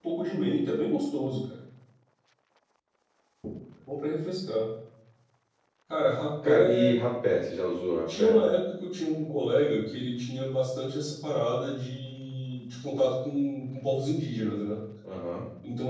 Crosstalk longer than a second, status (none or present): none